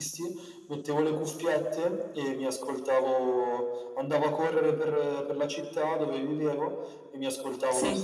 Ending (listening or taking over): listening